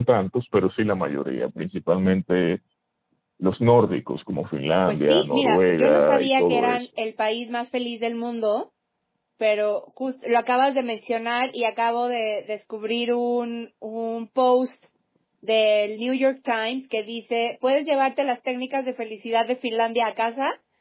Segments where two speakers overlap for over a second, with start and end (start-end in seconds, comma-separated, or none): 4.9-6.9